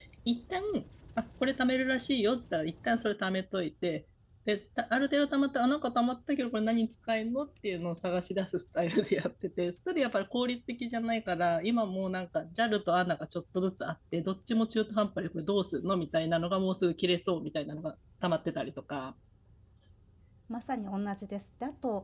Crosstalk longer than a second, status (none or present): none